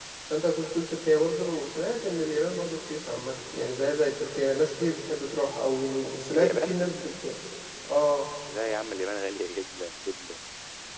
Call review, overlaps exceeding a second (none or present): none